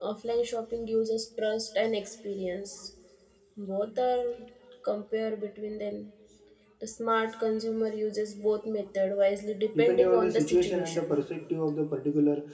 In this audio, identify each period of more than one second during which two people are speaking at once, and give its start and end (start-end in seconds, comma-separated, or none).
9.8-11.2